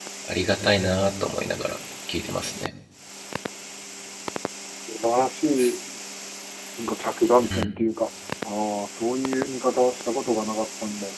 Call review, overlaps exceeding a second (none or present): none